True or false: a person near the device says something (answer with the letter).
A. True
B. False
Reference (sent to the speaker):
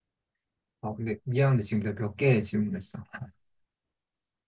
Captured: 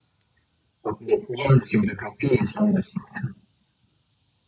B